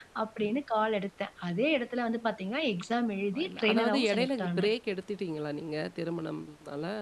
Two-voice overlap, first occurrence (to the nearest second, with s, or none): 3 s